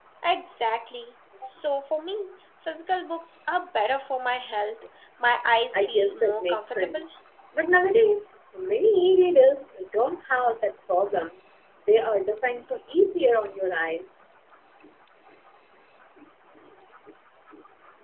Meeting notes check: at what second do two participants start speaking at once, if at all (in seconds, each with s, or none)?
5.7 s